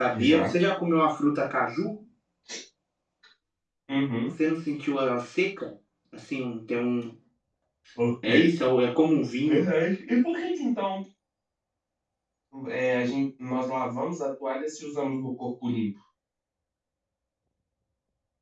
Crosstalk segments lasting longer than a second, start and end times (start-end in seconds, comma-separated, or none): none